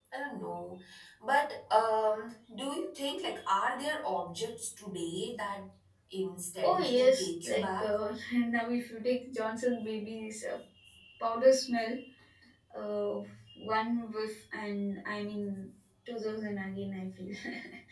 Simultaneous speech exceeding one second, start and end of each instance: 6.6-8.0

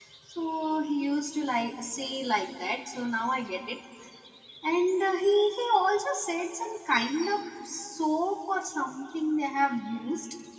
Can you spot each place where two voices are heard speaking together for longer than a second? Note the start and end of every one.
none

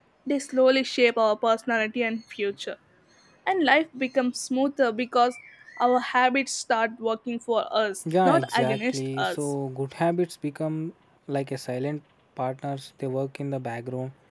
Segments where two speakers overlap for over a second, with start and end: 8.2-9.5

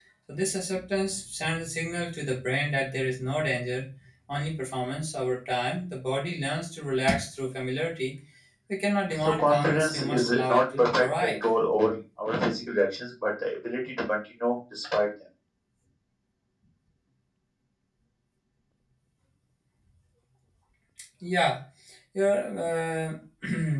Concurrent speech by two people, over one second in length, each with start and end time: 9.2-11.4

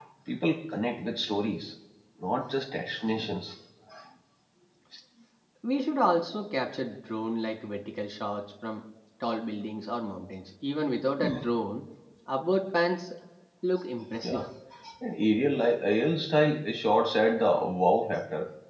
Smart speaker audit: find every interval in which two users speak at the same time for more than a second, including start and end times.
none

